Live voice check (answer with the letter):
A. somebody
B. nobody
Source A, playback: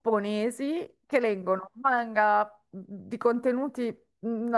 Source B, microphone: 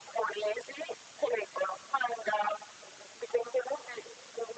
B